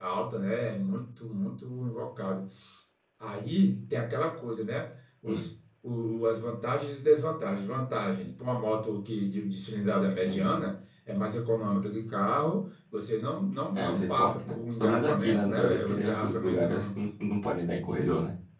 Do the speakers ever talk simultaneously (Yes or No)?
Yes